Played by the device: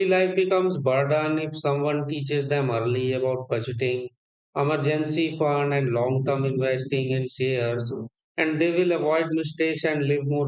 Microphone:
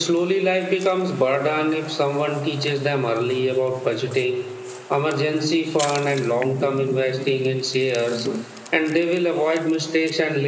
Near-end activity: none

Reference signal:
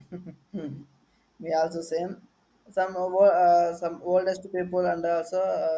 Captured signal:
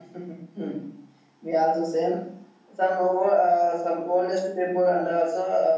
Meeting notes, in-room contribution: none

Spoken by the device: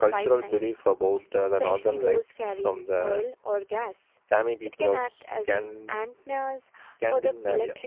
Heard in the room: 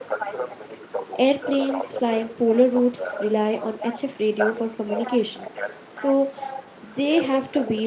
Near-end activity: present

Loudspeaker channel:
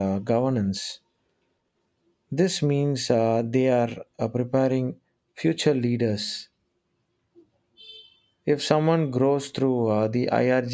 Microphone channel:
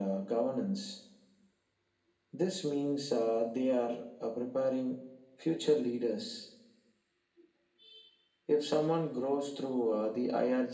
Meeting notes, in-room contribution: none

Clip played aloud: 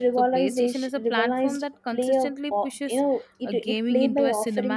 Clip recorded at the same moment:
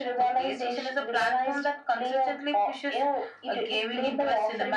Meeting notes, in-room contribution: none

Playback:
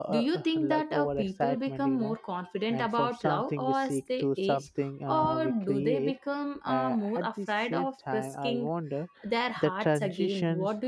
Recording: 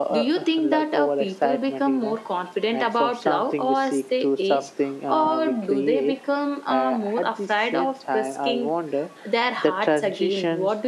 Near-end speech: none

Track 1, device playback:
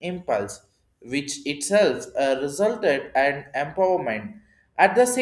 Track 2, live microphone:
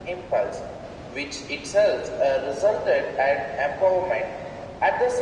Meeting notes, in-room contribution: none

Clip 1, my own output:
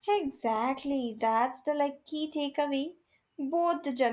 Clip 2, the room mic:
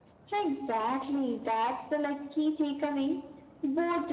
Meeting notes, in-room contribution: none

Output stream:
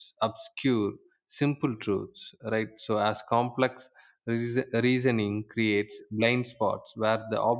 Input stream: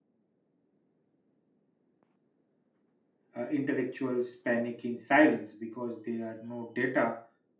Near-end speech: present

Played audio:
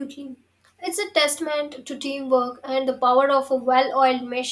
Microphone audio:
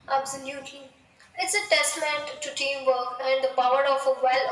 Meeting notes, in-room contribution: none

